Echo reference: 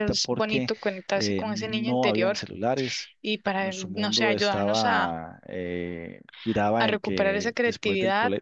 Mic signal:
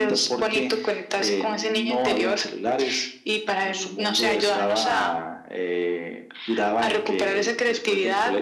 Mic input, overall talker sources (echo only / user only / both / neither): echo only